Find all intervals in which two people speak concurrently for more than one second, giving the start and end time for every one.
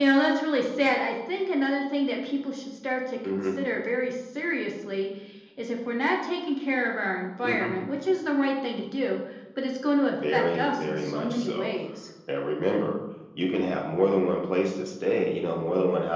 10.3-11.7

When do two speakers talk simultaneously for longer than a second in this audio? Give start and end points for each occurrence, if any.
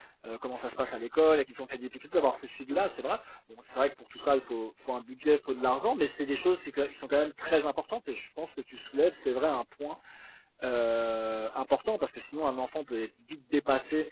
none

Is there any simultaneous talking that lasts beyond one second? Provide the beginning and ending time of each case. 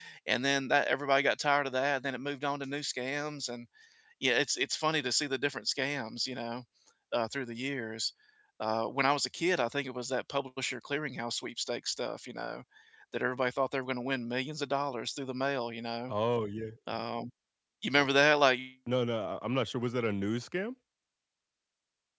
none

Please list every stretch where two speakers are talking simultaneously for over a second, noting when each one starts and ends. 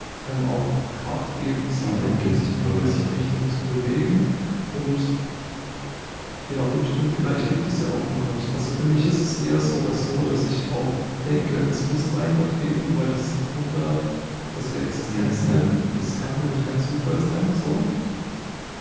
1.8-3.2

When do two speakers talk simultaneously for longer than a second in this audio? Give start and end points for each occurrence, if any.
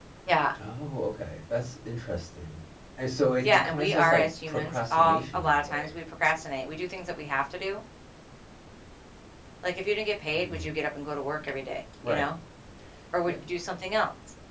3.4-5.9

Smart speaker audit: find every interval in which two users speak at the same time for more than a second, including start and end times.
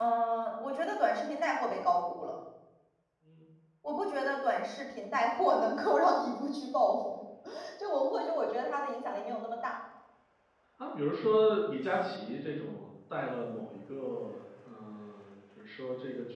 none

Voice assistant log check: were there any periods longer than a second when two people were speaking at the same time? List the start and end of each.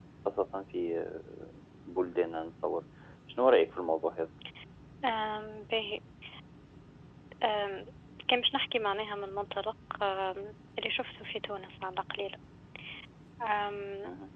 none

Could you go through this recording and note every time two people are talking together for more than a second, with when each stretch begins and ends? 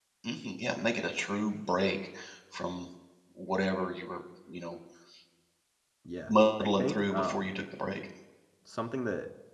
6.3-7.5

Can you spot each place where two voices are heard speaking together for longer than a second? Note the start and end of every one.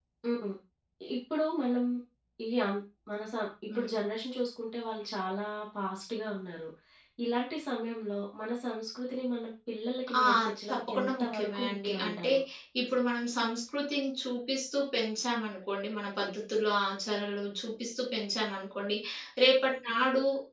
10.7-12.3

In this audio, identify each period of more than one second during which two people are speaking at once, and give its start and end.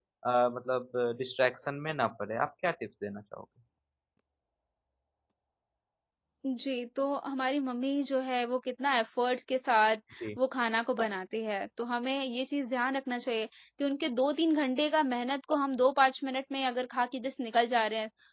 none

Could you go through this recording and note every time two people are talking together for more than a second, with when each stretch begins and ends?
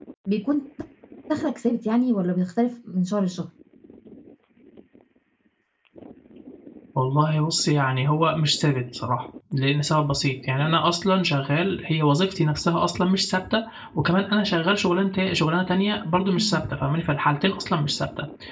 none

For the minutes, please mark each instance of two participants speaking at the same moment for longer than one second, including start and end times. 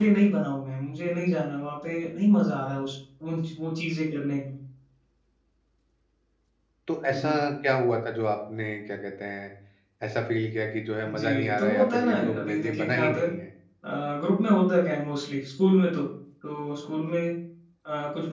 11.1-13.3

